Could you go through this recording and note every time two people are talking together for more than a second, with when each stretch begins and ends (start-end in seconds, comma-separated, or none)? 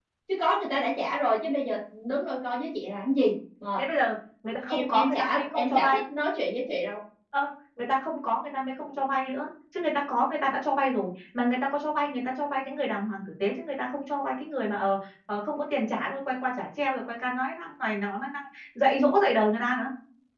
4.7-6.0